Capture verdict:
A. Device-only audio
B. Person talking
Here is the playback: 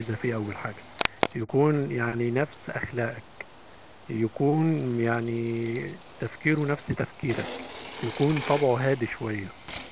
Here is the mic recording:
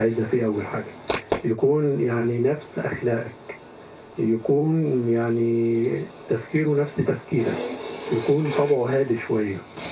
A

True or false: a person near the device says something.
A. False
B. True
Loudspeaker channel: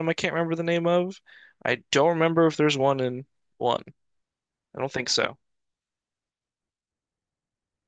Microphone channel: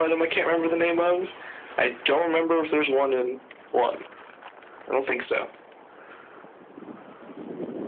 A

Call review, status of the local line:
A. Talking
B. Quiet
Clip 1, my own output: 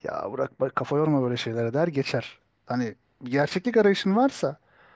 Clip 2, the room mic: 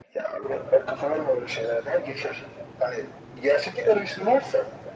B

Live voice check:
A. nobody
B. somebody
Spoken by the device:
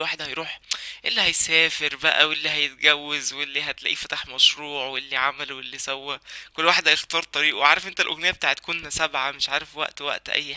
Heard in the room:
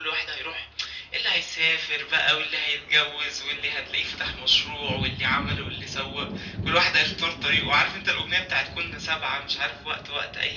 A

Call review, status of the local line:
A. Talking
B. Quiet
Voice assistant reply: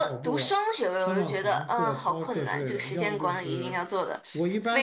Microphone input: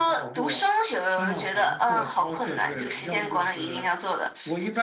B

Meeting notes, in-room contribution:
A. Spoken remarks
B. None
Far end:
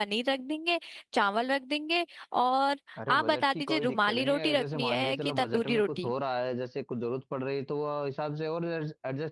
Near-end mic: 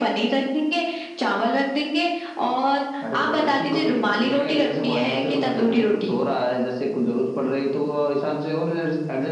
B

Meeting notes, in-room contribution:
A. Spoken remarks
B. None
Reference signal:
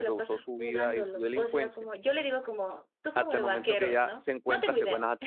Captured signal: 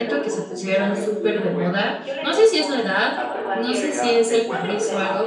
A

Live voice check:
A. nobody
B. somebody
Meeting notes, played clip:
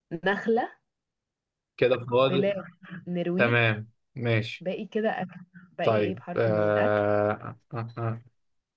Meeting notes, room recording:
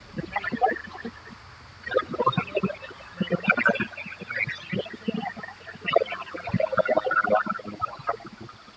A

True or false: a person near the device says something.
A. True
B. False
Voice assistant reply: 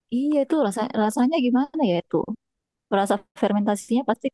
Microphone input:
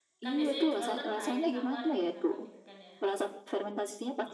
A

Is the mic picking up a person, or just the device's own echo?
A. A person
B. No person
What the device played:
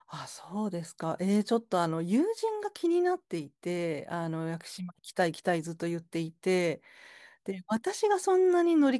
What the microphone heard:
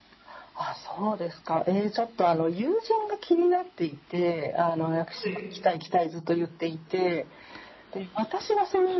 A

